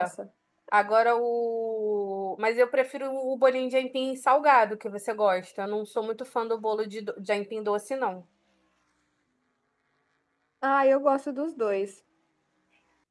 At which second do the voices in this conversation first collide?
none

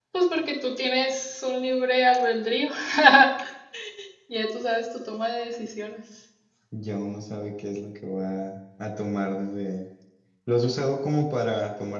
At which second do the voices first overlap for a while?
none

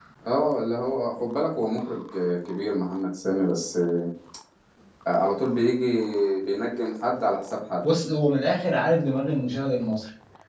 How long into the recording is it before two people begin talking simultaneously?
none

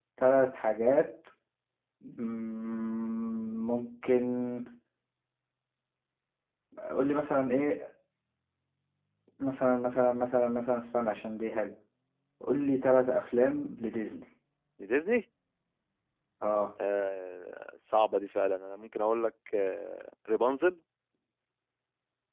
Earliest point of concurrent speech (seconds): none

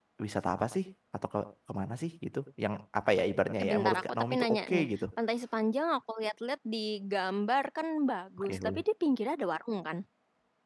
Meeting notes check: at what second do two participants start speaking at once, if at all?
3.6 s

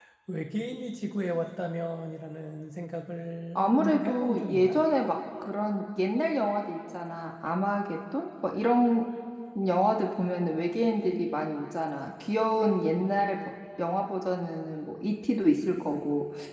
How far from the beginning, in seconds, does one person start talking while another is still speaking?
3.5 s

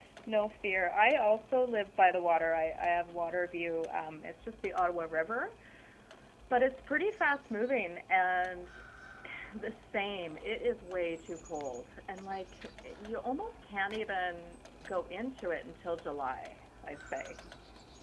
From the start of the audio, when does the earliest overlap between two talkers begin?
none

